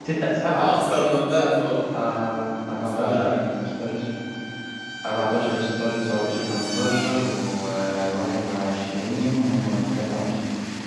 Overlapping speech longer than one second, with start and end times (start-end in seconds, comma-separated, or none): none